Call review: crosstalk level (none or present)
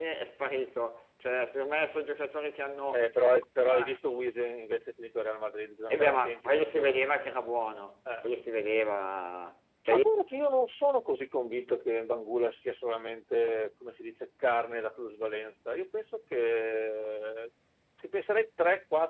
present